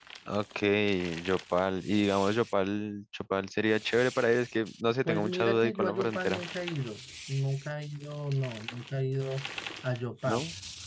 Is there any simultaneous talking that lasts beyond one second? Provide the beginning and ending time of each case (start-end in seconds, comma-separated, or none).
5.0-6.4